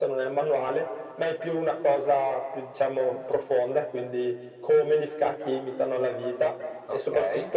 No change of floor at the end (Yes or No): Yes